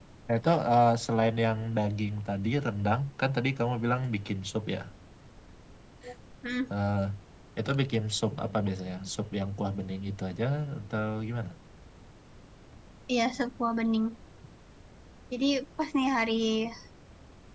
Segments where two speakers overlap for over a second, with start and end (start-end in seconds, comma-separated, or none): none